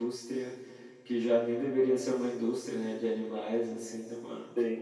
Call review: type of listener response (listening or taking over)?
taking over